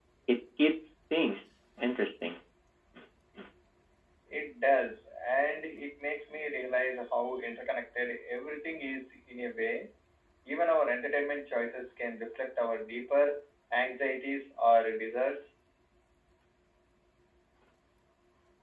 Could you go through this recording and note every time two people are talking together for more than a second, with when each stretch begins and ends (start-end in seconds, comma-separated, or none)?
none